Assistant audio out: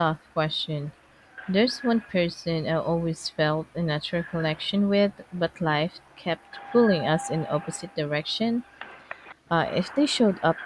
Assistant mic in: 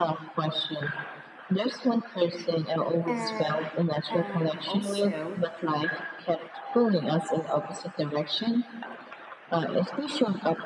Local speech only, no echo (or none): And and also